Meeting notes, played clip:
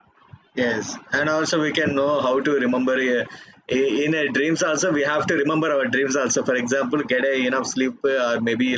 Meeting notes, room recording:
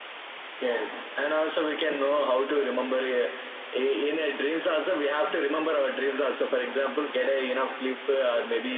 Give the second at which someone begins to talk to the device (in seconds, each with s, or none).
none